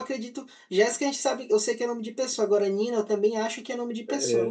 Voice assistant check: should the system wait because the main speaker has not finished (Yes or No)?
No